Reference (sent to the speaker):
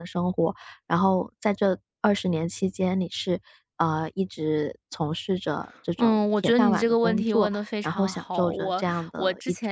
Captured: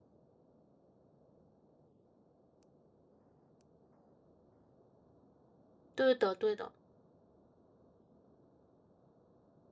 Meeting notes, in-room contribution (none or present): present